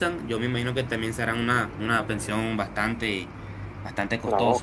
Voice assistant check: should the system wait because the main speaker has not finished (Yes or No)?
No